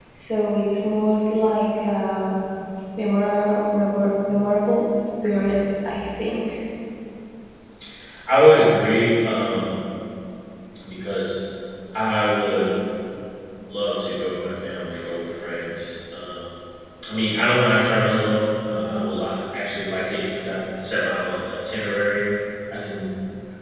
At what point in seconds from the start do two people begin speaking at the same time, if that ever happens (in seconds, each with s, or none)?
none